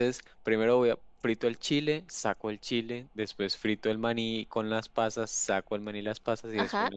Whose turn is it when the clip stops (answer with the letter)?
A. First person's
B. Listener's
B